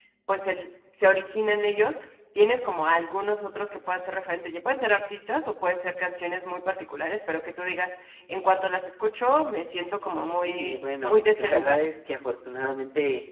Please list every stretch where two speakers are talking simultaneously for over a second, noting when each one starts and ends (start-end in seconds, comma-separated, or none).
10.3-11.8